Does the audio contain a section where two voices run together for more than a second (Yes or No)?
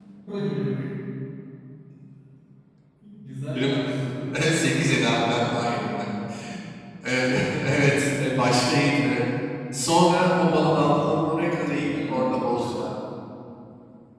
Yes